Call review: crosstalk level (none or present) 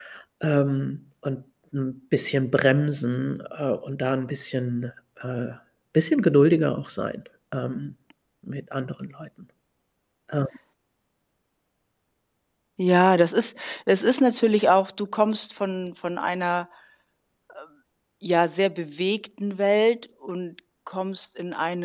none